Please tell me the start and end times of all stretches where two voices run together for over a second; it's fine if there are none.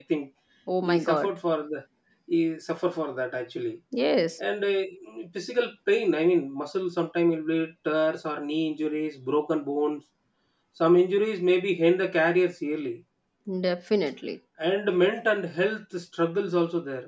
none

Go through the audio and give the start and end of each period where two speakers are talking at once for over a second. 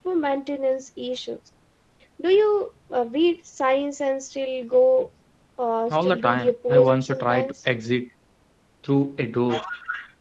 5.9-7.5

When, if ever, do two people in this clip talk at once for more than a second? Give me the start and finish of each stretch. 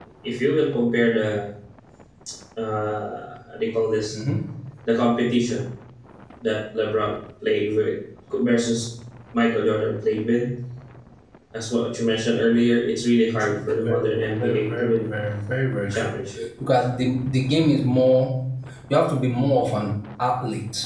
13.4-15.0

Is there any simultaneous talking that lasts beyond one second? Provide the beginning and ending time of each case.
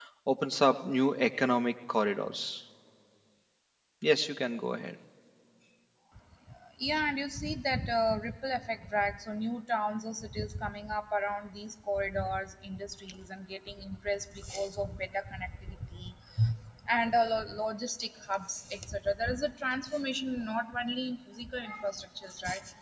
none

